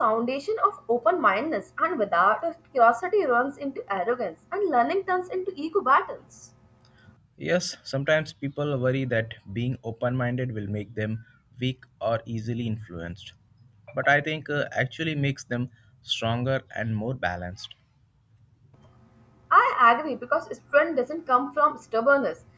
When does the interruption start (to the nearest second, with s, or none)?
none